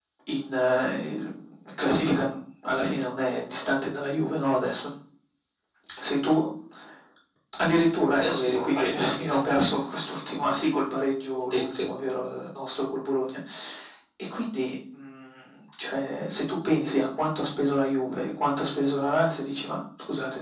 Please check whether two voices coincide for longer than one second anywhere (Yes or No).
Yes